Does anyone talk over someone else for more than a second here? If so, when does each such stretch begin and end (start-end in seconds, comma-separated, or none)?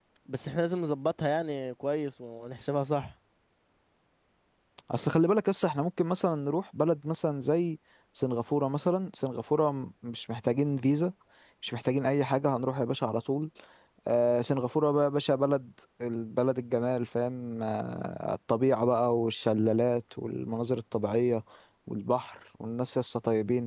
none